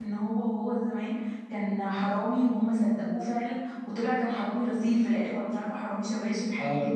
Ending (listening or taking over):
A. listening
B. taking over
B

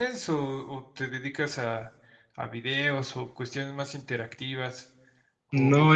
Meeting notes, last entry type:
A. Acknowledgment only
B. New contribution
B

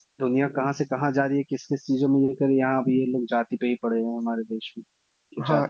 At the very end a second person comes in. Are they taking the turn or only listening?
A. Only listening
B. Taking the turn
B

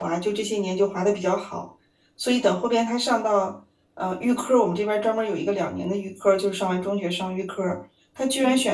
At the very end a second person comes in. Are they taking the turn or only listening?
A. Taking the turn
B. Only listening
B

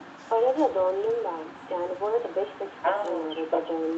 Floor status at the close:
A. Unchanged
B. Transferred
A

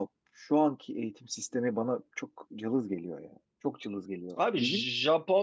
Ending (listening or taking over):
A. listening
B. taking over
B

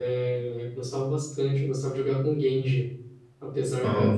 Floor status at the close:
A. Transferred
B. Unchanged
B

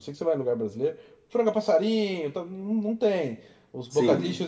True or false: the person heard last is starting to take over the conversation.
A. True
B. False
B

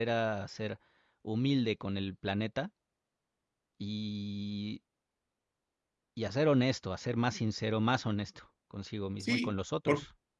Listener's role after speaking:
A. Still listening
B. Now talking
B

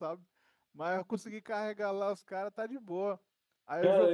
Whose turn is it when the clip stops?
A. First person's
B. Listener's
B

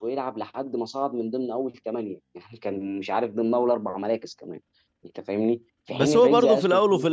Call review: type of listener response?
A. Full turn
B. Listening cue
A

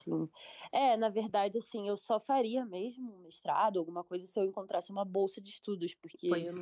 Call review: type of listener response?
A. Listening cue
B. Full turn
A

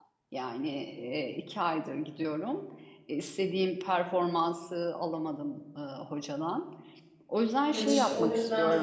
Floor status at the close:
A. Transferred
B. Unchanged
A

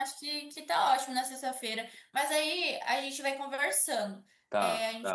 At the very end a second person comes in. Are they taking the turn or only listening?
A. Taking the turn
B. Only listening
B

